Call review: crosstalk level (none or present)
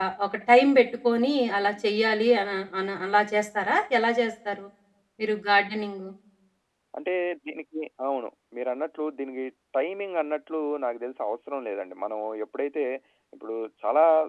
none